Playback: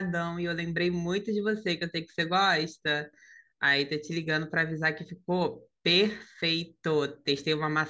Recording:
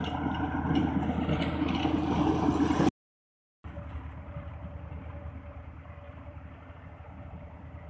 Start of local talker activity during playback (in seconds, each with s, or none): none